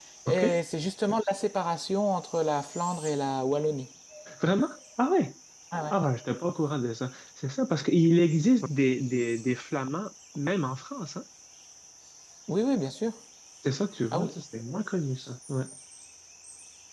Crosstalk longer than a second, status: none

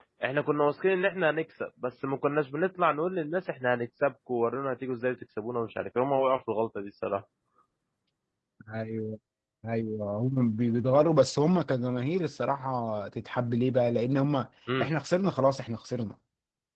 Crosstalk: none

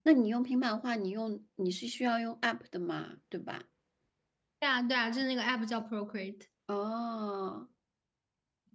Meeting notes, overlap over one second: none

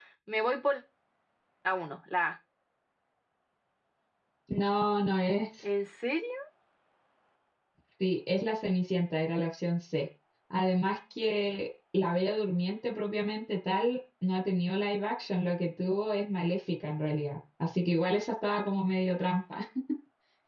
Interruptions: none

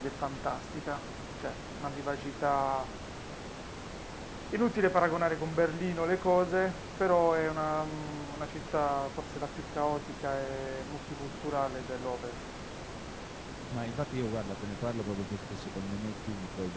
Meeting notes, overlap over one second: none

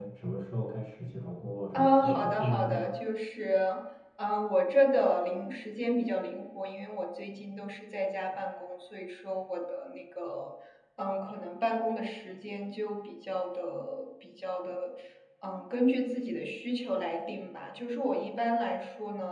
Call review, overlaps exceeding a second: present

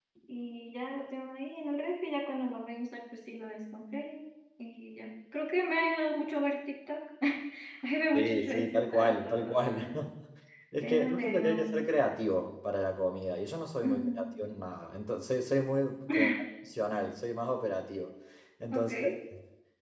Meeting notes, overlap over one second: present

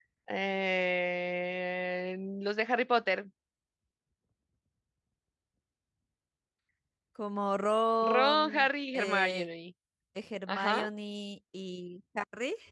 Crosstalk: present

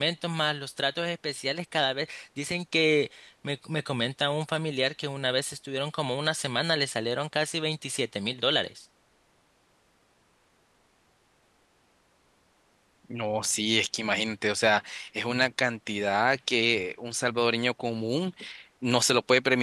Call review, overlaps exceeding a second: none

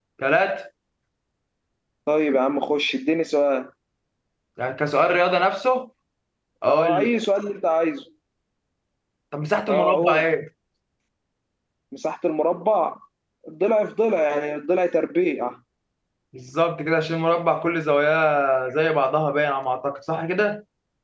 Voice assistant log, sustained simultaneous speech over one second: none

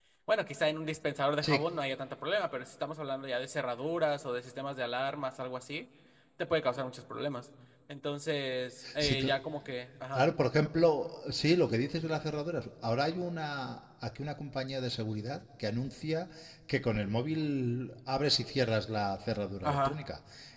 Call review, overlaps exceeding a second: none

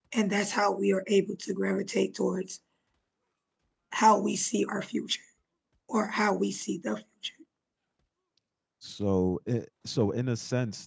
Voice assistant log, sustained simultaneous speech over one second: none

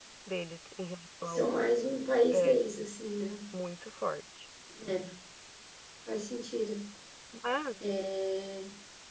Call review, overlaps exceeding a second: none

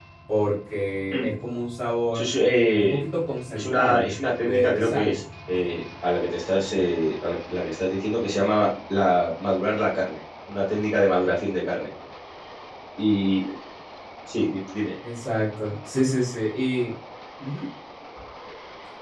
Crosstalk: present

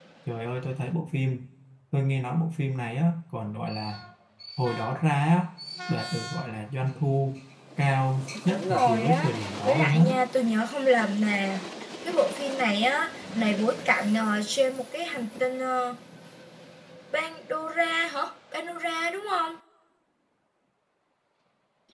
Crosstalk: present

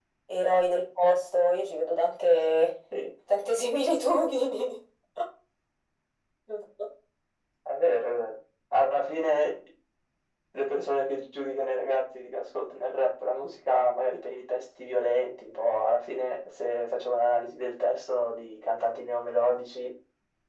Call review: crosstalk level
none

